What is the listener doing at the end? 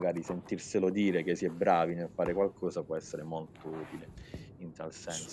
taking over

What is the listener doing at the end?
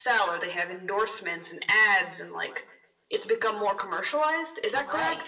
taking over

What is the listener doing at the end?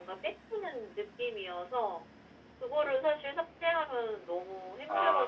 taking over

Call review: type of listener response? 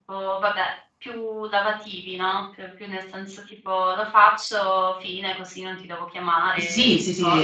taking over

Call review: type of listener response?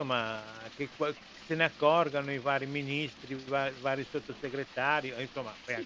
taking over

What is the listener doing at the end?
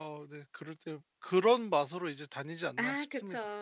taking over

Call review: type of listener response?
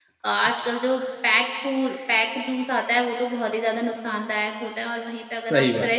listening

